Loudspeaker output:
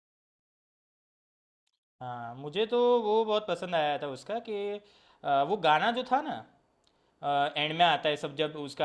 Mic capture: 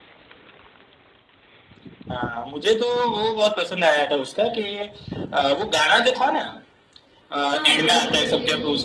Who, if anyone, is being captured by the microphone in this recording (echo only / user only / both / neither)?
both